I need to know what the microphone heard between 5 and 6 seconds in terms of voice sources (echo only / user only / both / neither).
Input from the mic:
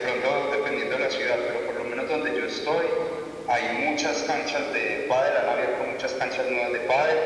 echo only